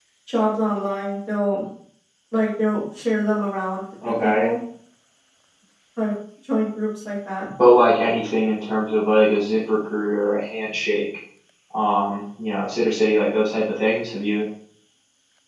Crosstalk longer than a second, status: none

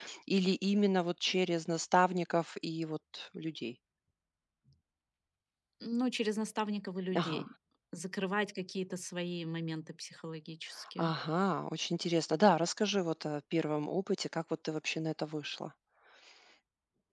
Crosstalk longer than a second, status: none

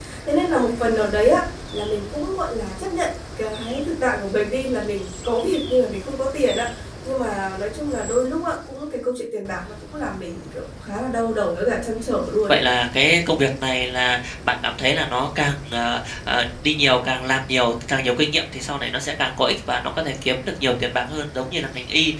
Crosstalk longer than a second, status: none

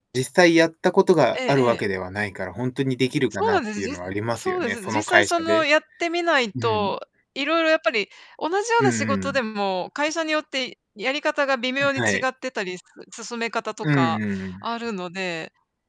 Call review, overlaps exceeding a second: present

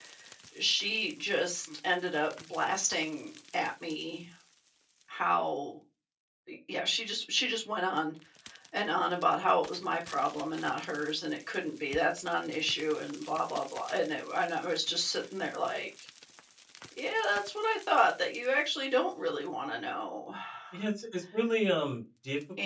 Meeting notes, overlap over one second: none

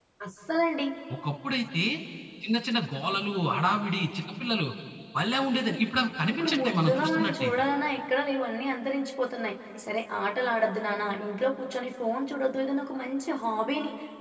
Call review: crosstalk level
present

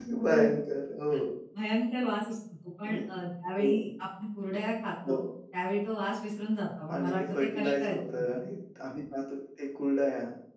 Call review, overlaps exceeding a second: present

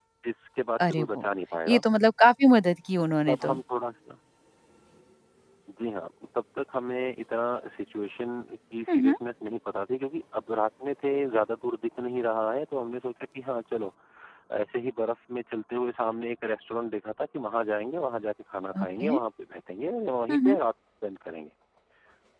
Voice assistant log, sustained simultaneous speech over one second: none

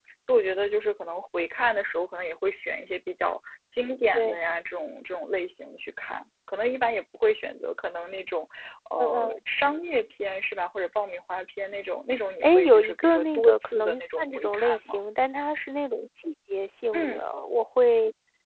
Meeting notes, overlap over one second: present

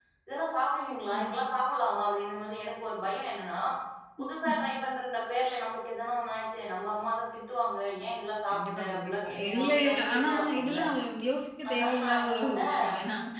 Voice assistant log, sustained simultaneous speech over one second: present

